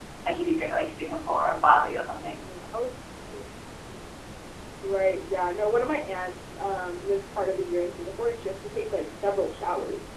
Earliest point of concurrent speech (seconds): none

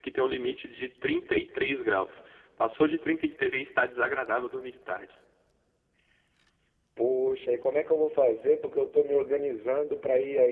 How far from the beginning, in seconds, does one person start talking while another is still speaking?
none

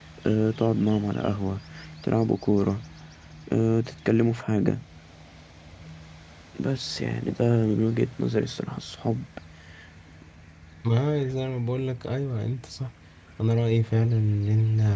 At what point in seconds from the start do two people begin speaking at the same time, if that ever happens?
none

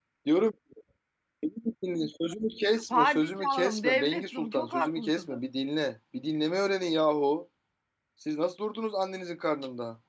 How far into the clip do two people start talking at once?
3 s

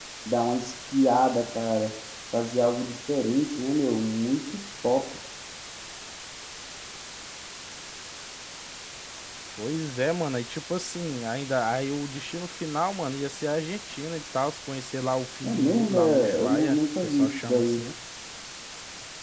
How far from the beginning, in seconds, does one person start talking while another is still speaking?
15 s

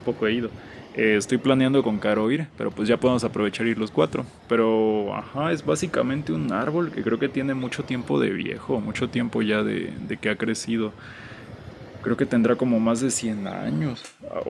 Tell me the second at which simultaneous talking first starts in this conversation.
none

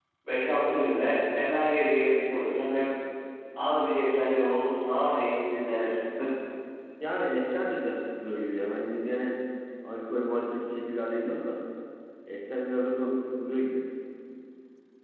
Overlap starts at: none

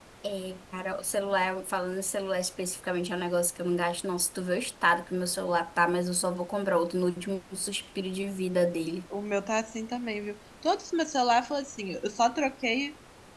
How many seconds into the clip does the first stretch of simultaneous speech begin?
none

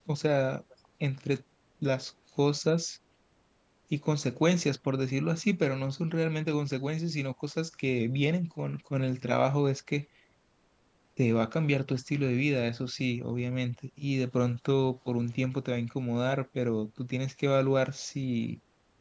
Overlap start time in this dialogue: none

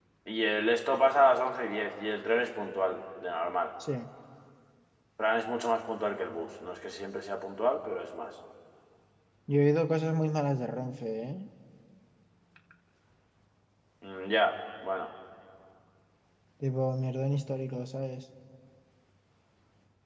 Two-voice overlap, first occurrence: none

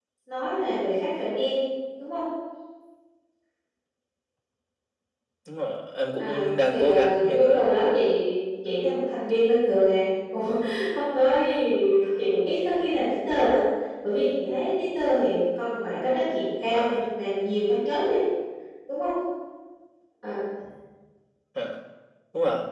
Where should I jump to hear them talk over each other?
6 s

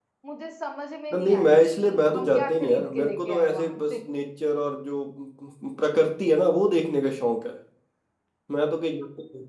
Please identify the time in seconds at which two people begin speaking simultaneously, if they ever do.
1 s

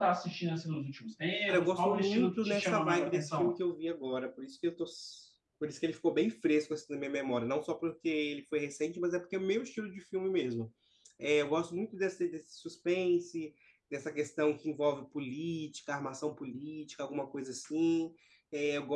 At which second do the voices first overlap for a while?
1 s

